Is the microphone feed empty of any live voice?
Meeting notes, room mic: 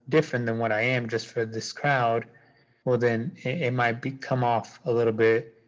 Yes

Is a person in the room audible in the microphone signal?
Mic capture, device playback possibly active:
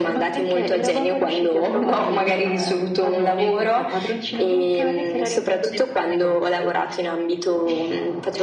No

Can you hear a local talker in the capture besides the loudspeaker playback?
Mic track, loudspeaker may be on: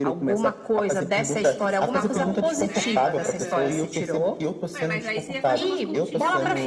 Yes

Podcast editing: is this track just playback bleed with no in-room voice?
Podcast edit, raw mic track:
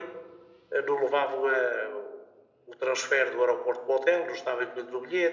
Yes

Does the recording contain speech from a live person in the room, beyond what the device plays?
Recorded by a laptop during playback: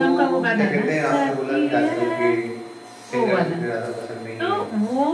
Yes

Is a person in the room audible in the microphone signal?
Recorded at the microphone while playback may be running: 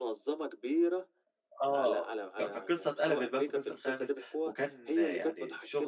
Yes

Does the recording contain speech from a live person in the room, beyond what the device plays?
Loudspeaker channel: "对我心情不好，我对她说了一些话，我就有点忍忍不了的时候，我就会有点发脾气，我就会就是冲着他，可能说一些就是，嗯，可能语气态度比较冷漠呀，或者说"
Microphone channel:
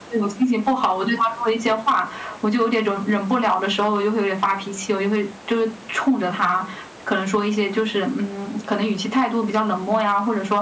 No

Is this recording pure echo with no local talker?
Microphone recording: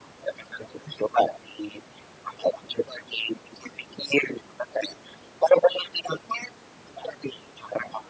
Yes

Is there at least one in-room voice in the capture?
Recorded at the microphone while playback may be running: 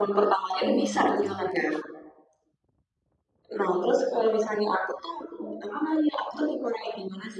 Yes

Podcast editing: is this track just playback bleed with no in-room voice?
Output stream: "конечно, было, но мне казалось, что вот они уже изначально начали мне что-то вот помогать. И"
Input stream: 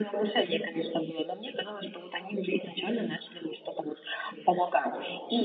Yes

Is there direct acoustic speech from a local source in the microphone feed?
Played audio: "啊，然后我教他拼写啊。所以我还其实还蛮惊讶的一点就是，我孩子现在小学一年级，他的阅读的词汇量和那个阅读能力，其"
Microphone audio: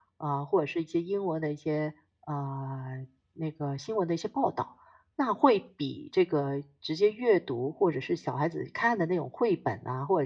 Yes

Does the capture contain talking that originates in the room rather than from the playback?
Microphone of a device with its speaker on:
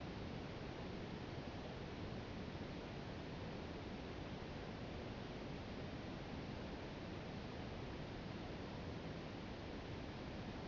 No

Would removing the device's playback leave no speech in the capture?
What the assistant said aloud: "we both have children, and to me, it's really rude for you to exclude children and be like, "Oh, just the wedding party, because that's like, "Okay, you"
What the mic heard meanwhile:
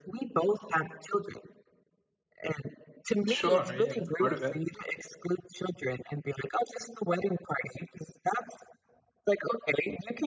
No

